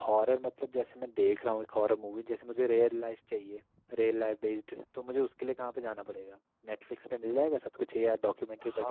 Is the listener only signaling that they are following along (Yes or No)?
No